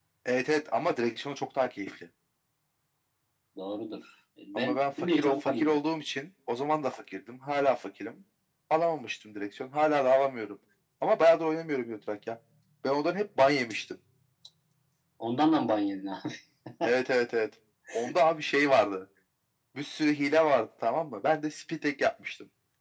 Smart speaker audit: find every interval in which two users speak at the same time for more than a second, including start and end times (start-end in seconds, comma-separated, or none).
4.5-5.8